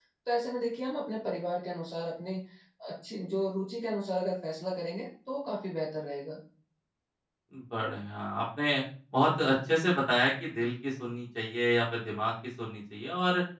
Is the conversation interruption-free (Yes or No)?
Yes